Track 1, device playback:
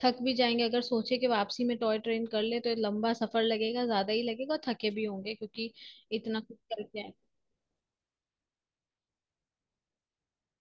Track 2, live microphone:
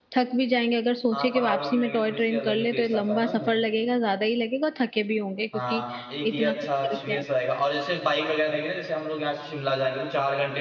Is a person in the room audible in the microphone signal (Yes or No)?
Yes